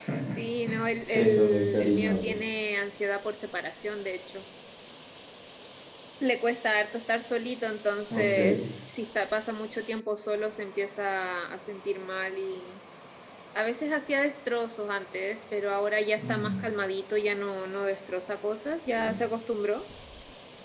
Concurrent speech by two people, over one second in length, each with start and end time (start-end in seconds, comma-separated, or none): 1.0-2.4